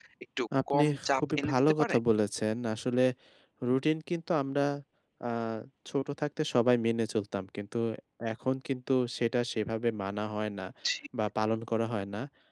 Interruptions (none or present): present